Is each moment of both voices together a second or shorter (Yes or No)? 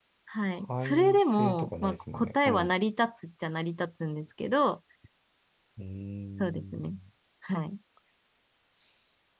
No